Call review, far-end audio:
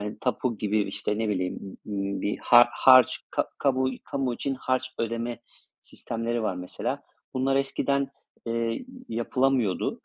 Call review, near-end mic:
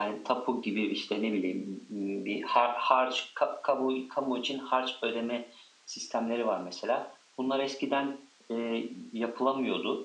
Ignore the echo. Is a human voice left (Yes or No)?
No